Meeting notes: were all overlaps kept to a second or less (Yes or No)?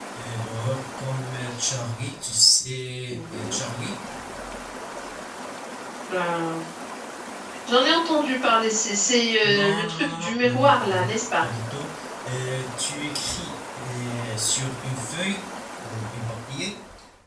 No